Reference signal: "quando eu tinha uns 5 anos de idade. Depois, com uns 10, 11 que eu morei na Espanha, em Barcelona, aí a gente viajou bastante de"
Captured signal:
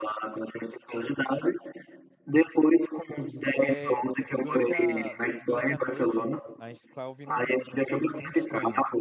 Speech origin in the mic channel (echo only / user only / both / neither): both